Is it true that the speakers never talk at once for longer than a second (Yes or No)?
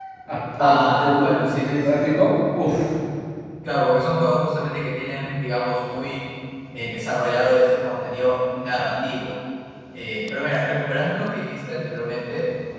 No